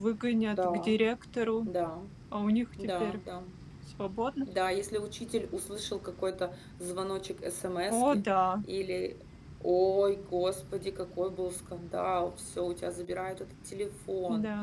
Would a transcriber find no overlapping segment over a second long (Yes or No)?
Yes